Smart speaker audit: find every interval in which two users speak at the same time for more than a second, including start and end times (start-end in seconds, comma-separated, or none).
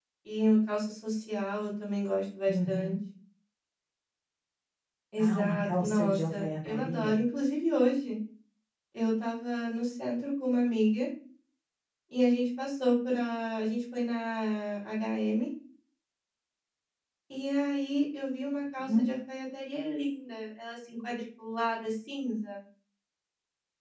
5.2-7.2